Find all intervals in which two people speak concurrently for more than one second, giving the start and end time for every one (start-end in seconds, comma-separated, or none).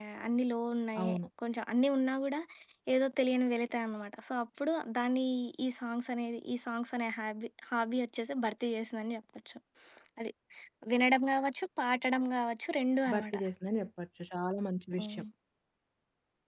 none